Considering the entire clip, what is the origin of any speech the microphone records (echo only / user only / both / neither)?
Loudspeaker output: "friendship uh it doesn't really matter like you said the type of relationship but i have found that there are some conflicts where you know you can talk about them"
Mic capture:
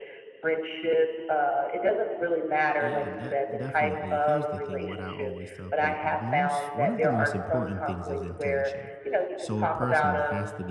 both